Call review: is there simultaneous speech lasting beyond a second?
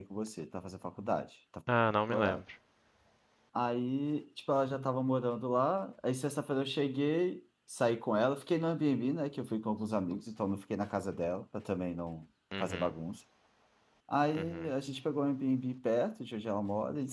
No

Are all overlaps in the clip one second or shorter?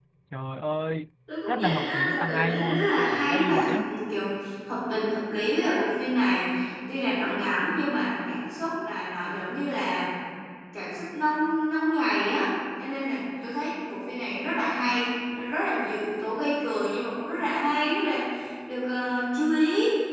No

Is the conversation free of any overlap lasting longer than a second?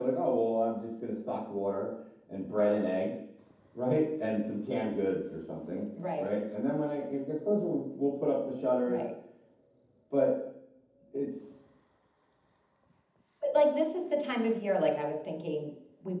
Yes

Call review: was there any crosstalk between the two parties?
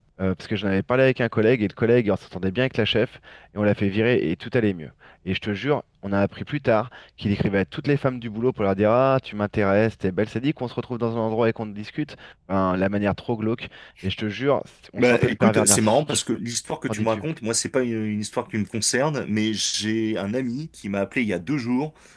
Yes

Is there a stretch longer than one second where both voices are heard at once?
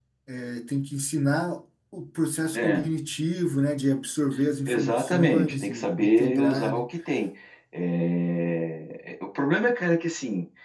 Yes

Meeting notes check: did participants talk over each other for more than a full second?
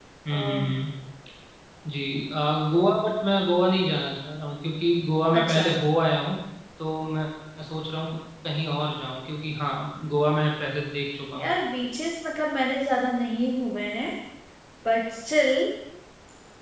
No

